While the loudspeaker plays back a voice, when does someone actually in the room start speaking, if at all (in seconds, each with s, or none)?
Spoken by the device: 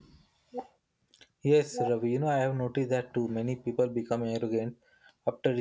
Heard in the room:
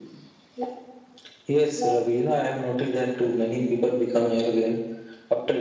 none